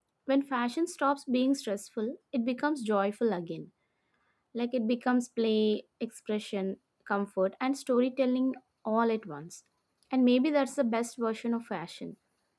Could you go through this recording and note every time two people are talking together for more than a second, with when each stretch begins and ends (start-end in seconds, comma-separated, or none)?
none